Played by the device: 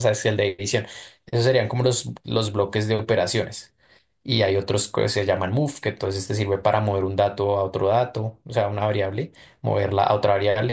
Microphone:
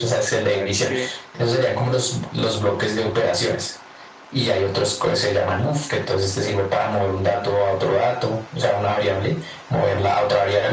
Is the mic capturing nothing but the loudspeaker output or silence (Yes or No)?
No